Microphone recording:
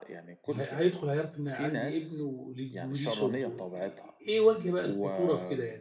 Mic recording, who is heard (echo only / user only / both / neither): both